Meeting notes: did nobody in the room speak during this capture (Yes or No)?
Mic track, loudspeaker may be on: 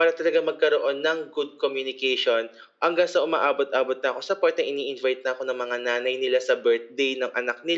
Yes